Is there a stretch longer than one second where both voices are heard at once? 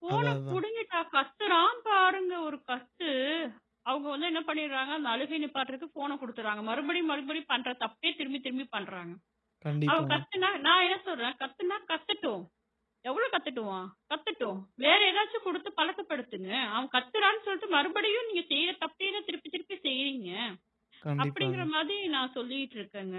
No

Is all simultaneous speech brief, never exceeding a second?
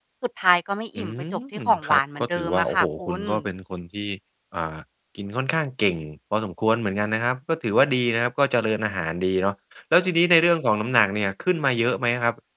No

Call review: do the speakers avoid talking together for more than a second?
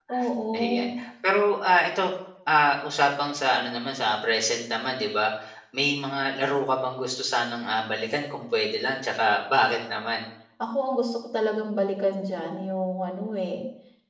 Yes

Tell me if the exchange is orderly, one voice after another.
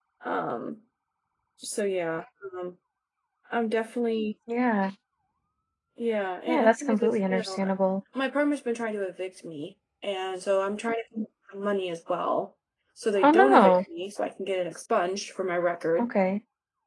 No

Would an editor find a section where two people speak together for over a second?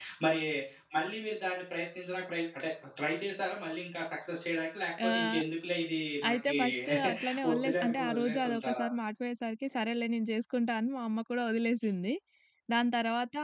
Yes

